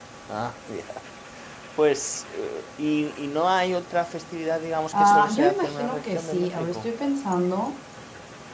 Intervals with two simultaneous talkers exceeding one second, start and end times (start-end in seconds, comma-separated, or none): 4.9-6.9